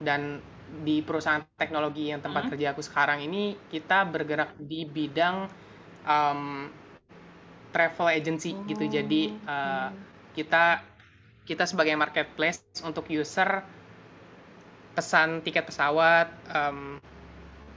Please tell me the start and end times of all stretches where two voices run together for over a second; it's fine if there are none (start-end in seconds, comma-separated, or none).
8.5-9.9